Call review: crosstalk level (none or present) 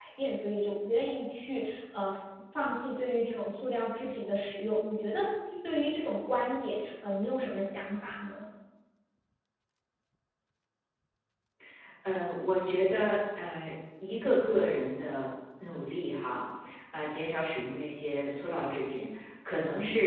none